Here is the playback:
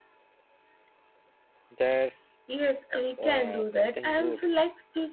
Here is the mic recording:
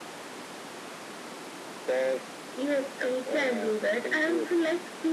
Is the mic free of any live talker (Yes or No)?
Yes